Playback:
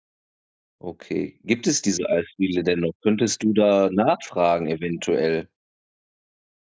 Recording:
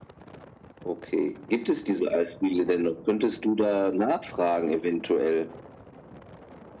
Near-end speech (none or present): none